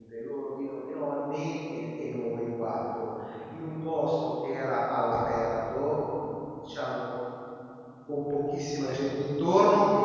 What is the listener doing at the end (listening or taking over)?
listening